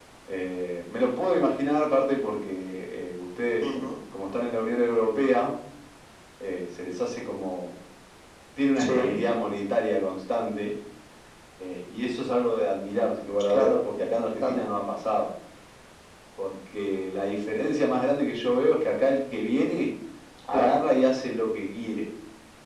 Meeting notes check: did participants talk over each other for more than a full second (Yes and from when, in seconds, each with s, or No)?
No